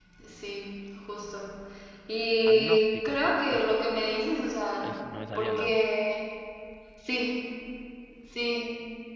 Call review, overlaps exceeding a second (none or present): present